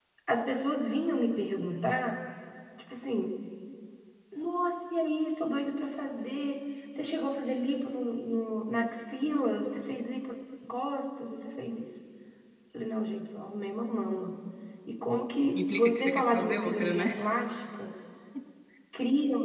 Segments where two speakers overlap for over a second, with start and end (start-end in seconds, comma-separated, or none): 15.5-17.1